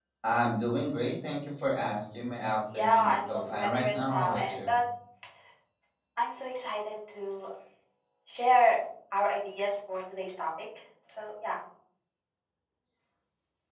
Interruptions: present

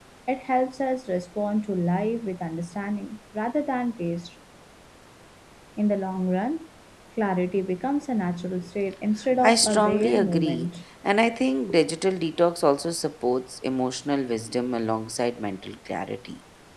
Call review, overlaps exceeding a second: present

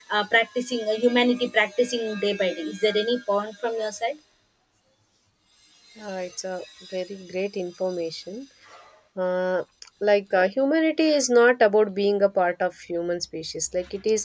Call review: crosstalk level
none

